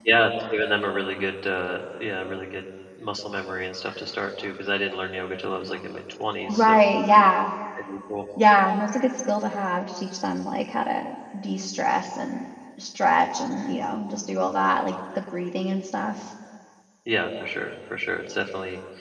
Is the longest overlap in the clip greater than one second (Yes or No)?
No